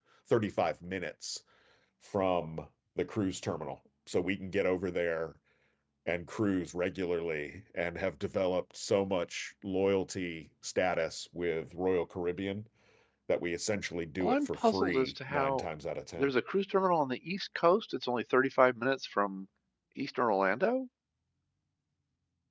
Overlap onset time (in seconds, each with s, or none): 14.2 s